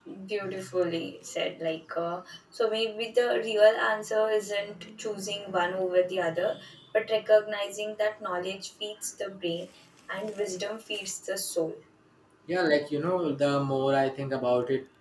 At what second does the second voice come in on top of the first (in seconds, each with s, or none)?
none